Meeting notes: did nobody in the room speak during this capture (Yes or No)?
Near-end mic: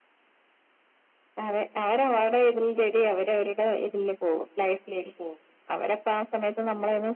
Yes